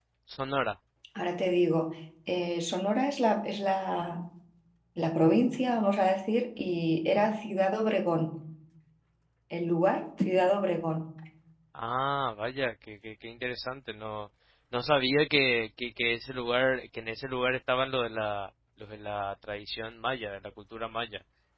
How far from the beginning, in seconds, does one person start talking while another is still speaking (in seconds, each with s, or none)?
none